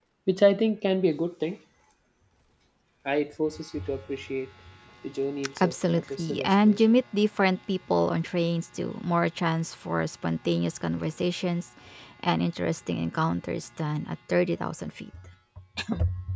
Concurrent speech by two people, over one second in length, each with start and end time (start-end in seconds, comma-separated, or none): 5.6-6.9